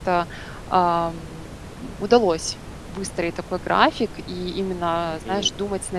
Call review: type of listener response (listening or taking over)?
listening